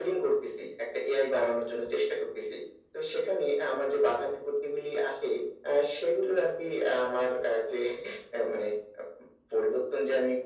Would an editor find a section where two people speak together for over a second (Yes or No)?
No